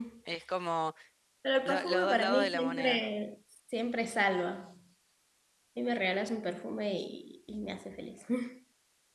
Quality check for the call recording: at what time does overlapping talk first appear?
2 s

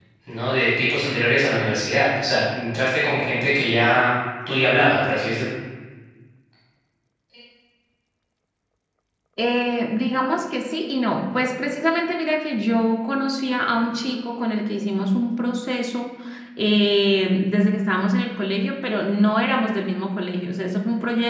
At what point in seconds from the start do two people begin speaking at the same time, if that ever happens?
none

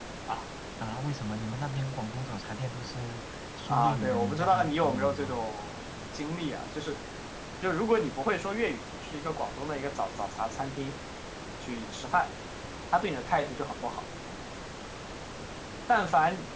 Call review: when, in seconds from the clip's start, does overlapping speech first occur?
4 s

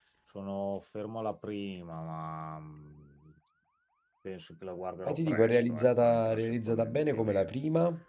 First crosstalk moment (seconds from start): 5 s

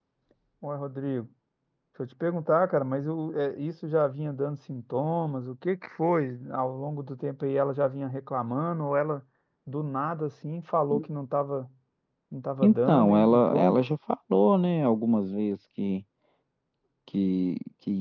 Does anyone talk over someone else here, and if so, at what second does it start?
13 s

